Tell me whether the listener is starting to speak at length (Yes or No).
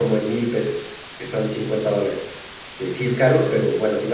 No